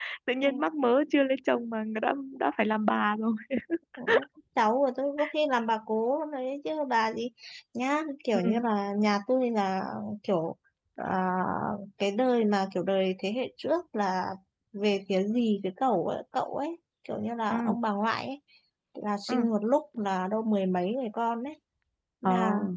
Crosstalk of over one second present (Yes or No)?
No